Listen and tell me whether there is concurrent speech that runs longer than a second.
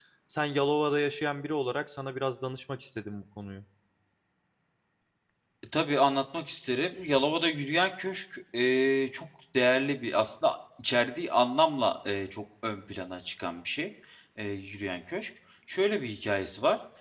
No

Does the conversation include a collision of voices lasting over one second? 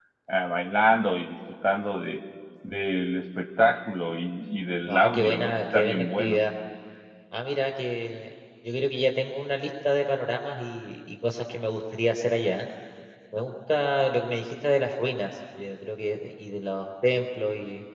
Yes, from 4.9 s

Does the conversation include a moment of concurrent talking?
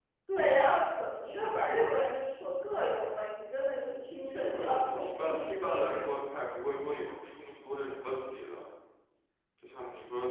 Yes, from 4.3 s

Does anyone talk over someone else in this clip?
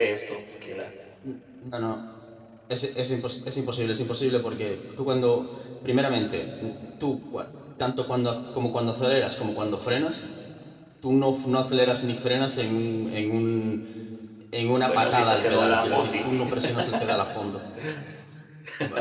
Yes, from 14.9 s

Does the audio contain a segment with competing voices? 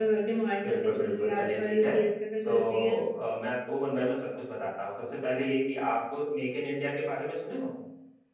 Yes, from 0.6 s

